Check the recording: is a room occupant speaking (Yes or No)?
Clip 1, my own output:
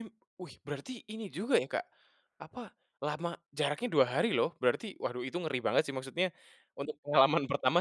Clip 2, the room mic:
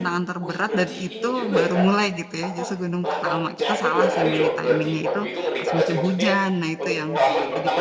Yes